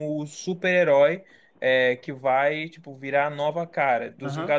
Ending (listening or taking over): listening